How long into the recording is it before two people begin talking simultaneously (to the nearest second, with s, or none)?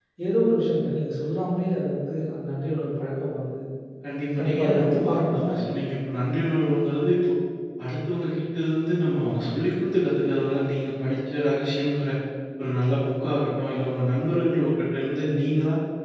4 s